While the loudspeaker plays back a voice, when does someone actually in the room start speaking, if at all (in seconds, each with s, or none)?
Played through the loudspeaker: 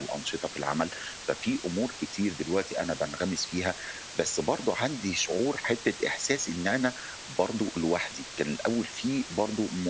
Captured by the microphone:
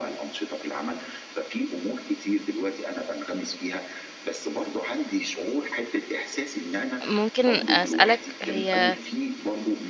7.1 s